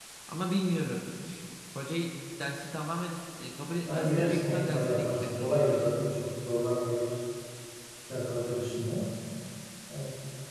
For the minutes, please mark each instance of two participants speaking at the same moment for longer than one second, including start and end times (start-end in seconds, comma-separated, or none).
3.9-5.9